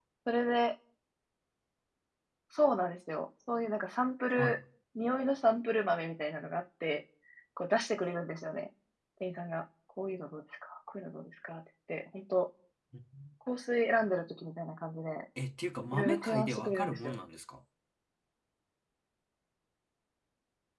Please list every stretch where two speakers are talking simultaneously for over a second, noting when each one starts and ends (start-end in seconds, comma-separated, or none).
15.9-17.2